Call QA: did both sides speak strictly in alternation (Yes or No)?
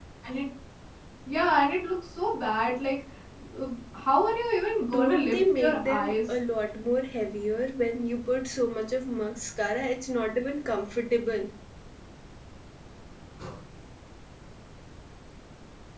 No